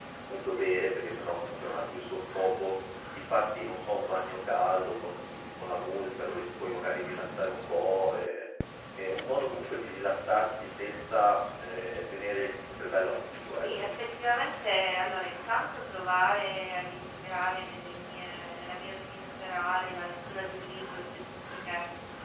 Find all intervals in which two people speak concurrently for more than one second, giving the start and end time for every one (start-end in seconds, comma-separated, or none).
none